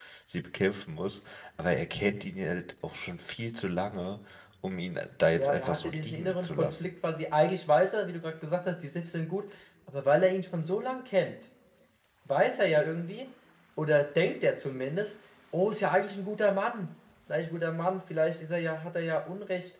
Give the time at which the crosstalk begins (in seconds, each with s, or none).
5.4 s